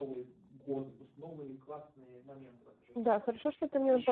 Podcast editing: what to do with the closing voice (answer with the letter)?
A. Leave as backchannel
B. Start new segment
B